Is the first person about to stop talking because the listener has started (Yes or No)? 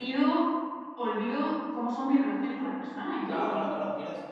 Yes